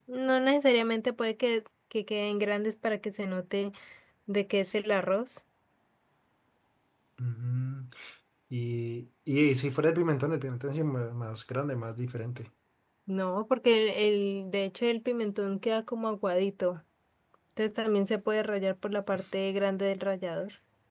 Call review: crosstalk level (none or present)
none